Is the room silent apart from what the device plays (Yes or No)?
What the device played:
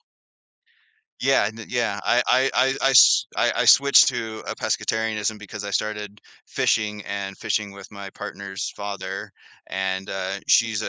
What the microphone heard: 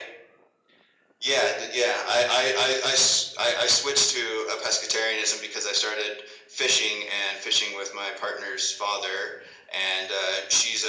Yes